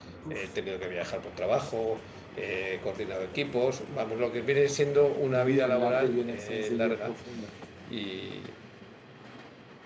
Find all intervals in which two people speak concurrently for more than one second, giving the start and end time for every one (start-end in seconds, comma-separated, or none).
5.3-7.1